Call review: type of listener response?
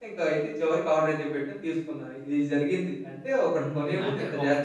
taking over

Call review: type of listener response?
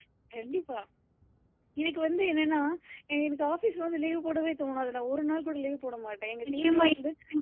taking over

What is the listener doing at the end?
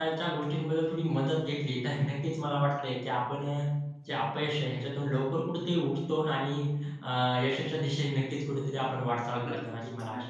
taking over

